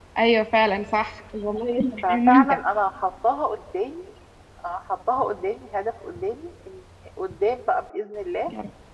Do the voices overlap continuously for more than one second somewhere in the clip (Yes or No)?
No